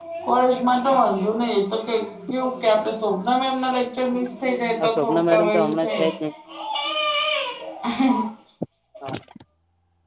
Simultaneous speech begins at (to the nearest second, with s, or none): 5 s